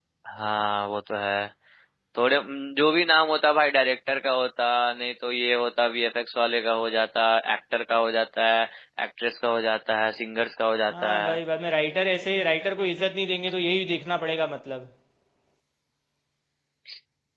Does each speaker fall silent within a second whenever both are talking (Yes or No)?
Yes